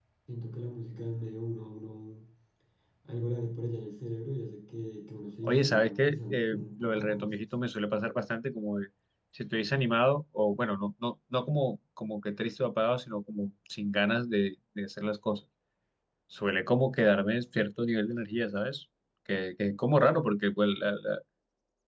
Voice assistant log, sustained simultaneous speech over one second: present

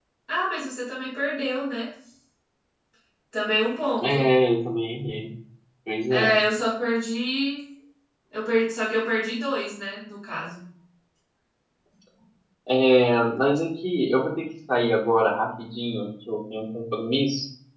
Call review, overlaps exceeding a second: none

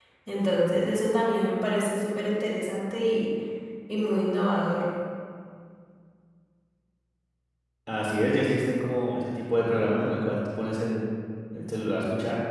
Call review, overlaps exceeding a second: none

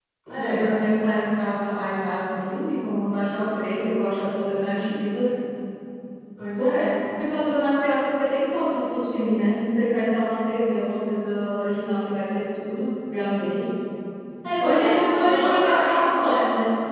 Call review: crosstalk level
present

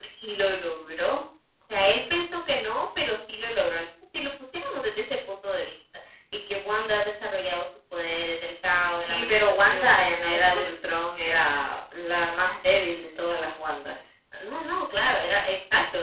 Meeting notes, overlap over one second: present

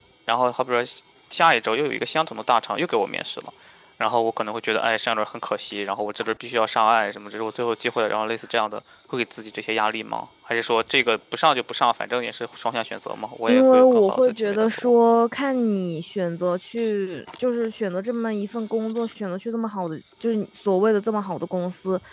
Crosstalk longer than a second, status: present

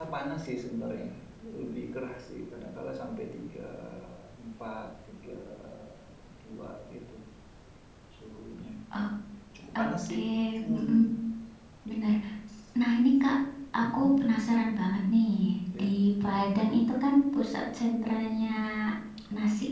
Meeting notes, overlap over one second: none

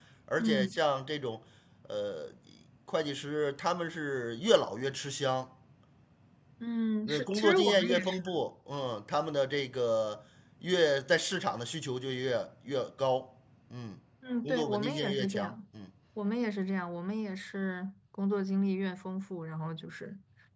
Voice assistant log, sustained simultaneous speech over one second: present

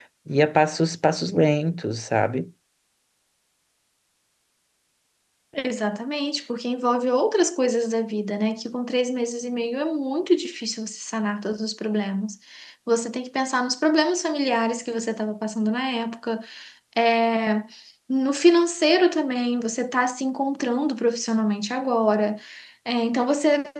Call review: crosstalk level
none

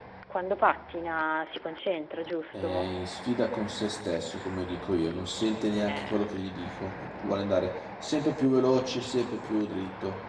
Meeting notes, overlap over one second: none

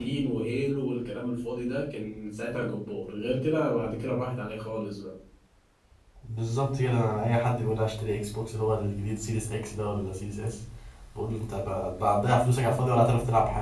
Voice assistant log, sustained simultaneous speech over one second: none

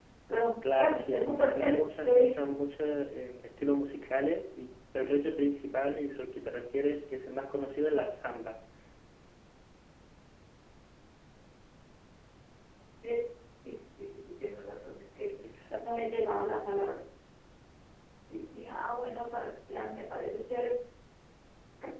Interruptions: present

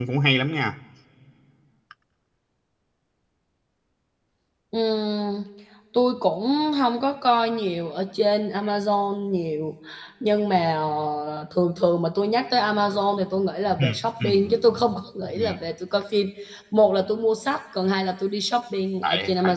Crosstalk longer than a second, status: none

